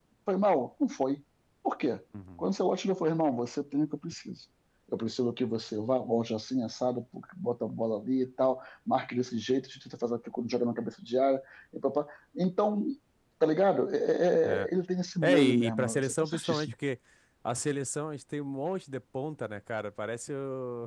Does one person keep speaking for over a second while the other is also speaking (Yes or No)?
Yes